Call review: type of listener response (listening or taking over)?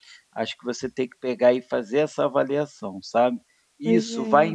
listening